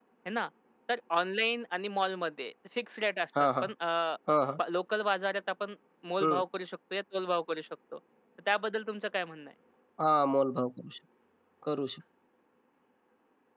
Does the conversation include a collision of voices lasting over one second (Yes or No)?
No